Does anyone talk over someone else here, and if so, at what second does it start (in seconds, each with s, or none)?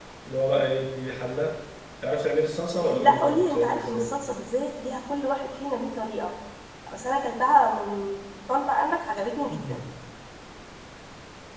2.7 s